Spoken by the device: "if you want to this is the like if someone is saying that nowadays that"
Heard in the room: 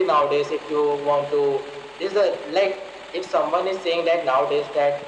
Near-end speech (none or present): none